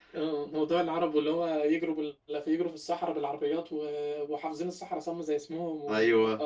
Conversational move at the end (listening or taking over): listening